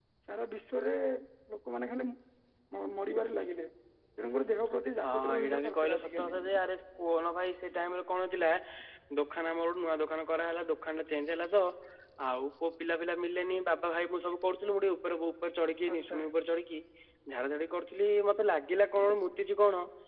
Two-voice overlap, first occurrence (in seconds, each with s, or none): 5.0 s